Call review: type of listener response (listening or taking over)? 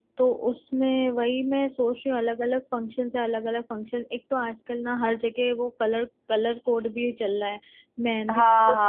taking over